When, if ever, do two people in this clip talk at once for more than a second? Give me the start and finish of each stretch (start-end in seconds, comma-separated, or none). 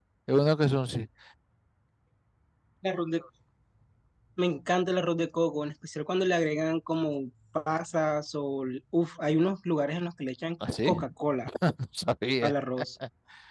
none